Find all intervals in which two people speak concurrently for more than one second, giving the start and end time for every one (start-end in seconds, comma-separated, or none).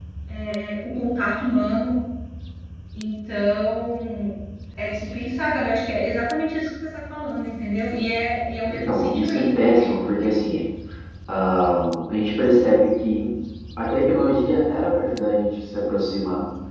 8.7-10.3